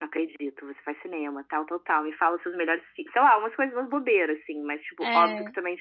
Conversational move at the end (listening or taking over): listening